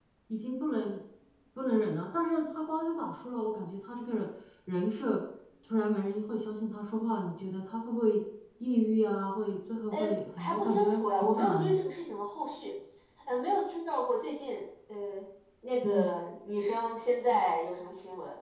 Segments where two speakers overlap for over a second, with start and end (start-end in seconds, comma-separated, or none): 10.4-11.8